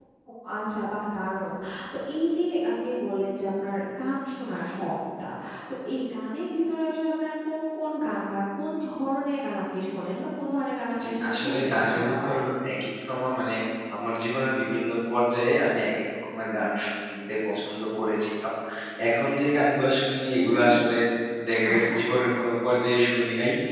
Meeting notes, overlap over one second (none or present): present